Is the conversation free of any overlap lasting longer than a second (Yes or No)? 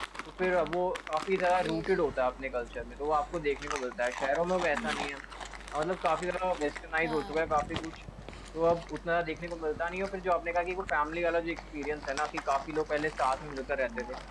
Yes